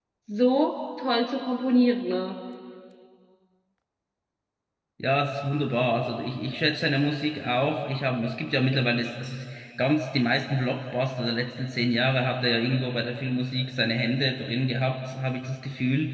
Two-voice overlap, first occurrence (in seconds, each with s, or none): none